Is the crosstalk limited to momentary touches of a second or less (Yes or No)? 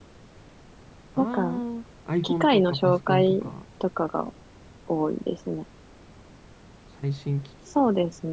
No